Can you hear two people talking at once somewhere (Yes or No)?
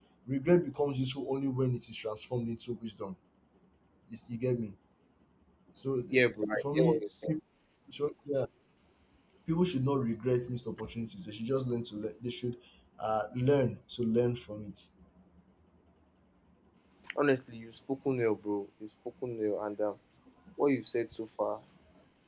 Yes